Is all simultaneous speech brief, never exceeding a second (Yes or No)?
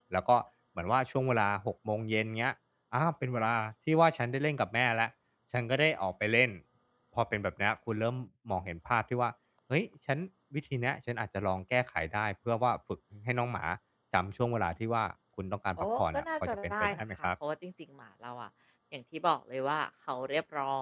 No